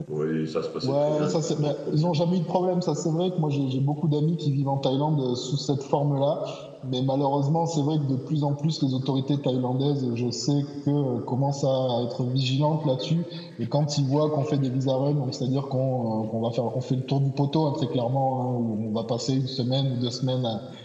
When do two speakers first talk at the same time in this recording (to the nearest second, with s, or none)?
1 s